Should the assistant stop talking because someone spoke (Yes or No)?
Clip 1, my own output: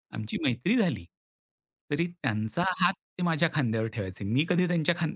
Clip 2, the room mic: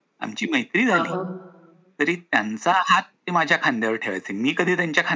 Yes